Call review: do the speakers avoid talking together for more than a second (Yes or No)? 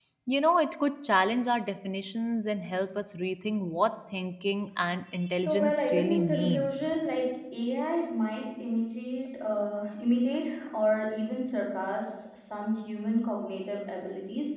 No